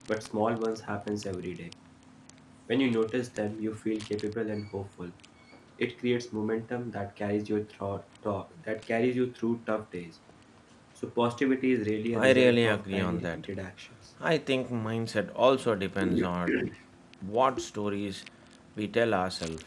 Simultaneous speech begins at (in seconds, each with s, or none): 12.1 s